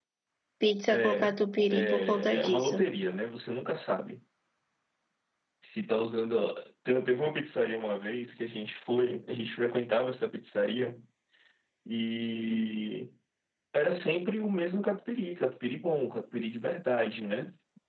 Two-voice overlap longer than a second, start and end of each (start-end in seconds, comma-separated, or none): 0.9-2.9